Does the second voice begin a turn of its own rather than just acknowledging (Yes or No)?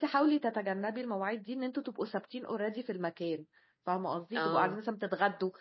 No